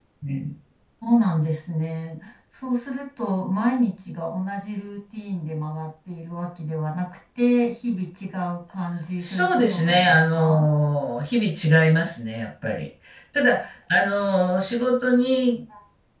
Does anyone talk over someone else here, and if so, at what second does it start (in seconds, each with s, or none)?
9.2 s